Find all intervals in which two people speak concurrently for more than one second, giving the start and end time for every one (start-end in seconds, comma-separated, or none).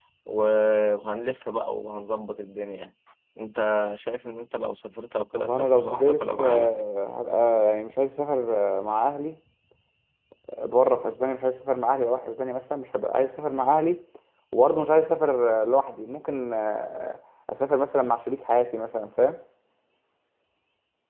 5.3-6.7